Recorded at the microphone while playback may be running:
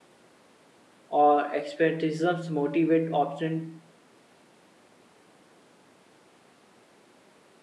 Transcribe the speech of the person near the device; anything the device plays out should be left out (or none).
or expertisms motivate option